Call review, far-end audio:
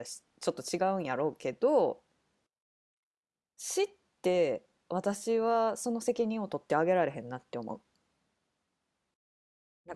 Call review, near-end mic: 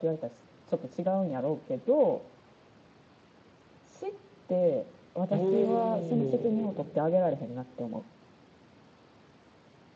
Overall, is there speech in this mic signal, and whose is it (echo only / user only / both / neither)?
both